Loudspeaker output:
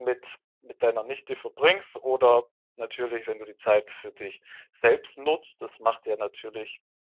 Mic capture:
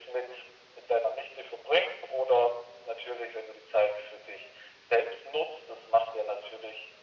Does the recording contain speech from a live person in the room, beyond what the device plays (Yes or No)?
No